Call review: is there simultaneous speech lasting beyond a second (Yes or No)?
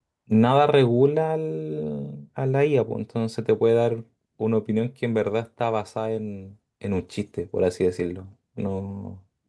No